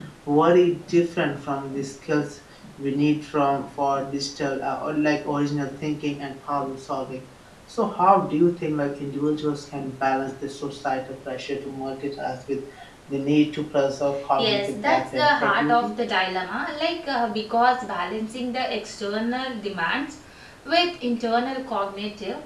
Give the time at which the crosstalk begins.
14 s

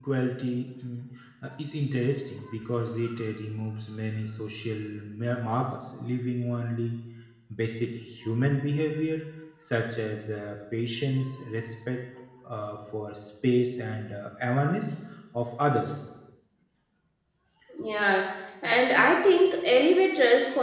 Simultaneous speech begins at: none

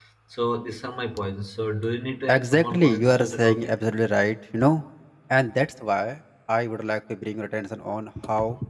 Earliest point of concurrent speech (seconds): 2 s

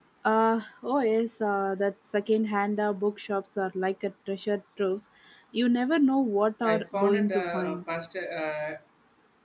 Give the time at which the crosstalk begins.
7 s

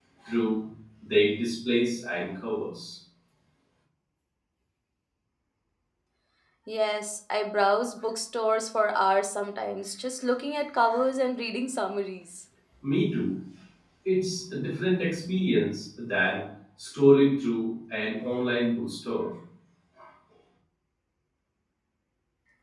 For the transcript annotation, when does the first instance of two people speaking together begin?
none

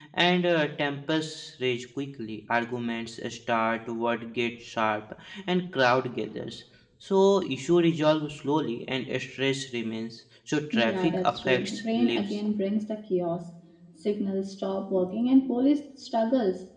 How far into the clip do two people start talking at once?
11 s

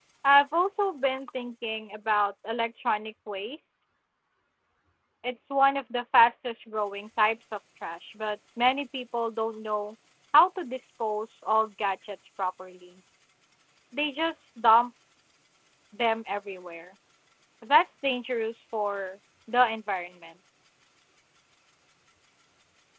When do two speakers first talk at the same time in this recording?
none

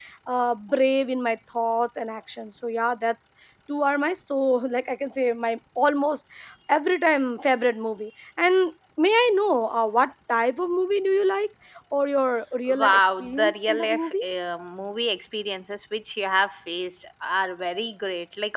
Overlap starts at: 13 s

